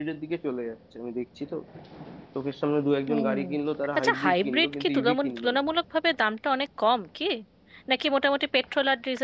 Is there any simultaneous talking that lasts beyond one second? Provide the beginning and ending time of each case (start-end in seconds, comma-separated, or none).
4.0-5.6